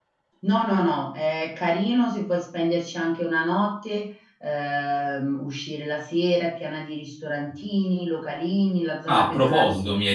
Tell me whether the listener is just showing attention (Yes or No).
No